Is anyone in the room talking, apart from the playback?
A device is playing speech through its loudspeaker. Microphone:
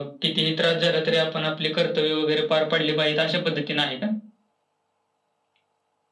No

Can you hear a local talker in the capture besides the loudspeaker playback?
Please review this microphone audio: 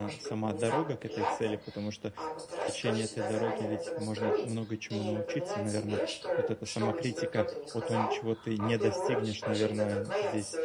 Yes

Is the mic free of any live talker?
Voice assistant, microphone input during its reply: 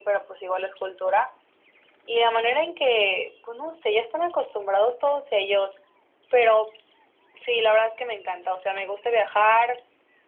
Yes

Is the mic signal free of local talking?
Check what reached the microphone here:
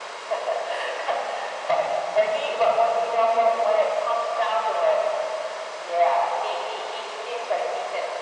Yes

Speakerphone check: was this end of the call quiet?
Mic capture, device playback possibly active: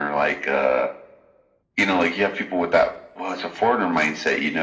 Yes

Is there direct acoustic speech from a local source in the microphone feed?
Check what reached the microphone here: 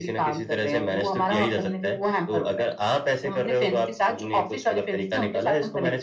No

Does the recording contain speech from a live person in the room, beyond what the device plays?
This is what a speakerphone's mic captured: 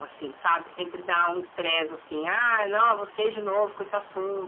No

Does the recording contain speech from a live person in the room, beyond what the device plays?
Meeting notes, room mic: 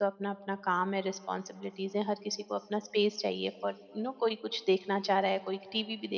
Yes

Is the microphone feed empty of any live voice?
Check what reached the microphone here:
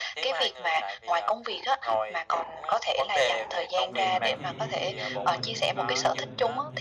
No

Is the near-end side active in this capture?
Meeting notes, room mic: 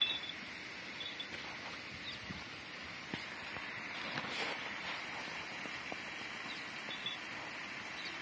No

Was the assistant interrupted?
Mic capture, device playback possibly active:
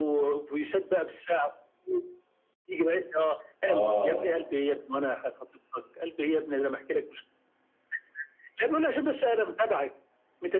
Yes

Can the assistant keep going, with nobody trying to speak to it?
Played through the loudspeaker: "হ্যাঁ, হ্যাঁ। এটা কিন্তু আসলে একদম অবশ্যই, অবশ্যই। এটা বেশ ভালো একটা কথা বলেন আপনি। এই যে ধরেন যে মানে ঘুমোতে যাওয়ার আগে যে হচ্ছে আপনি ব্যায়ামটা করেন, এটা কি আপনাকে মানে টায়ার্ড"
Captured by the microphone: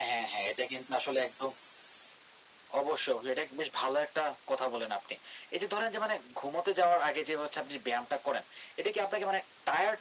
Yes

